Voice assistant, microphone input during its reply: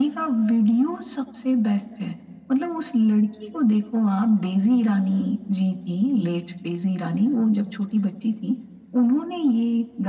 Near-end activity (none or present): none